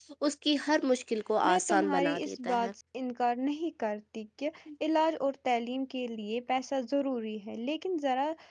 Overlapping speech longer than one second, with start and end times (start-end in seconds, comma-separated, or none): 1.5-2.7